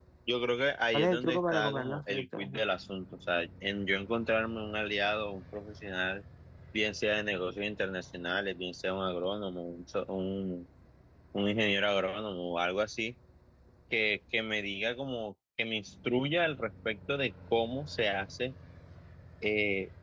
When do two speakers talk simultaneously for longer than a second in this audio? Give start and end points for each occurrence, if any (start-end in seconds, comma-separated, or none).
0.9-2.6